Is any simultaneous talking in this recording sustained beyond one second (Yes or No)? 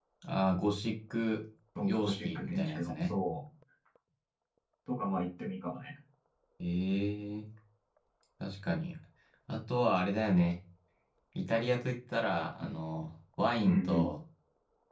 Yes